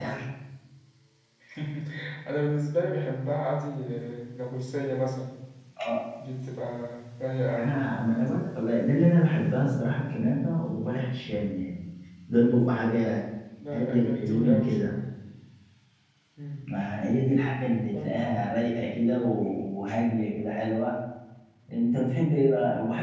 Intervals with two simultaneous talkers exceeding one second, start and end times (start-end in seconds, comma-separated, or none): 13.7-14.9